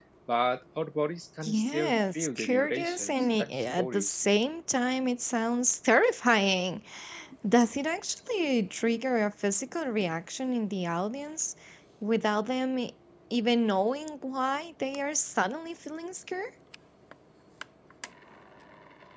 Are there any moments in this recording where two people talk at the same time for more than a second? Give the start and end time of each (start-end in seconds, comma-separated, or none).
1.4-4.2